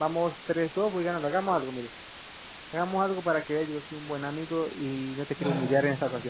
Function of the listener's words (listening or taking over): listening